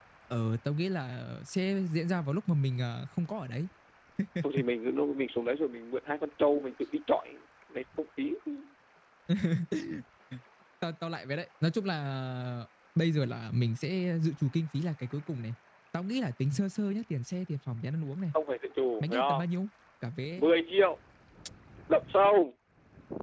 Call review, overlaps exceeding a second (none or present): none